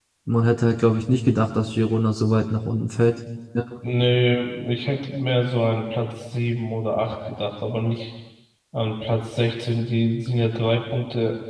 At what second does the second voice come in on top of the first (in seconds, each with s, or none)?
none